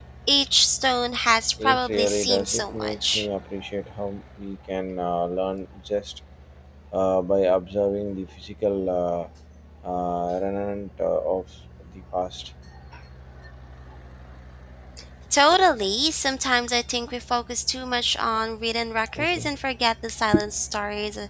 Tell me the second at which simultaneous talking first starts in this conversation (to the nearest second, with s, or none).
2 s